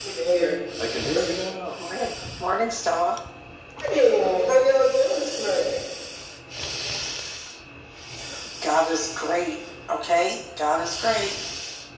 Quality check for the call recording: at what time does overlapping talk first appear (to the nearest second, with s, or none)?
none